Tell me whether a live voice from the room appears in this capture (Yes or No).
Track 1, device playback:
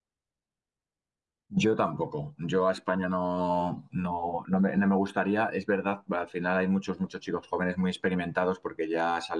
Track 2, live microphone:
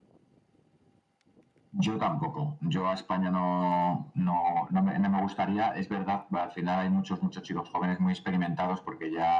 No